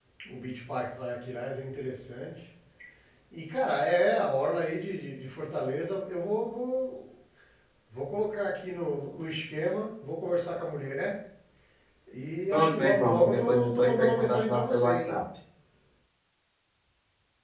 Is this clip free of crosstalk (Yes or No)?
No